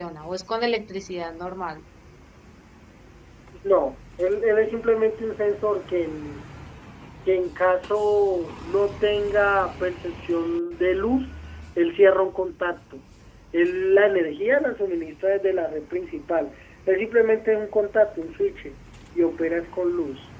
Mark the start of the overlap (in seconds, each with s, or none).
none